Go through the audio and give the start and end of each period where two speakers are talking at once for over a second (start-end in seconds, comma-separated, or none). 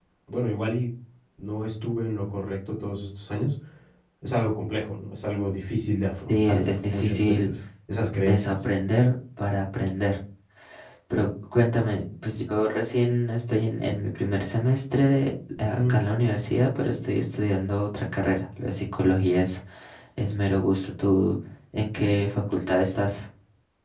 6.3-7.5